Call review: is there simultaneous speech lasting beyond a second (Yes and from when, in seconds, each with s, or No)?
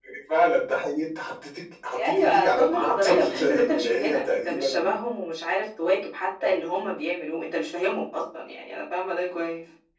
Yes, from 1.8 s